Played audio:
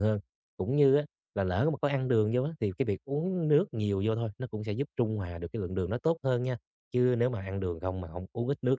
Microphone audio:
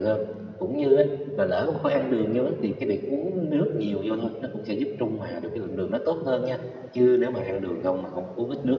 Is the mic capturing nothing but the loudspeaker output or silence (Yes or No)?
Yes